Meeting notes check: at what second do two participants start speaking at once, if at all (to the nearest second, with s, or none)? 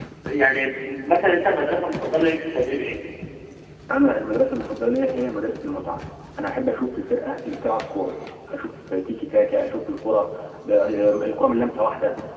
none